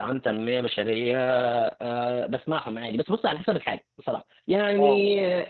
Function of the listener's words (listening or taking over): listening